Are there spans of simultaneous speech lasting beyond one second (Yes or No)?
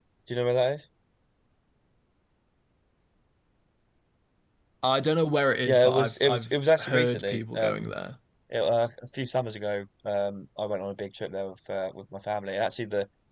Yes